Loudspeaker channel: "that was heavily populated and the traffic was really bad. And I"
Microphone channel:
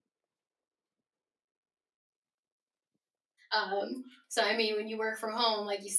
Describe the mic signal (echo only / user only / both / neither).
user only